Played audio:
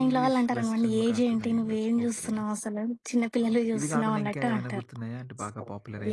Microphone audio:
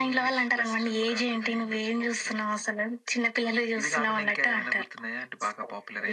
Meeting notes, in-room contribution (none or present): none